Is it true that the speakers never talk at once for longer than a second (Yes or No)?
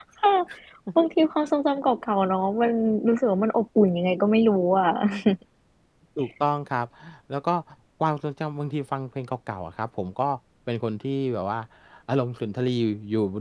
Yes